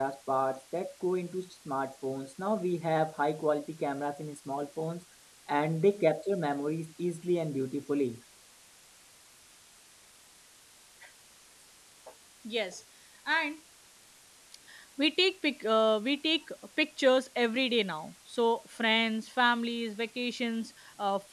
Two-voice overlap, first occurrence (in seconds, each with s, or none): none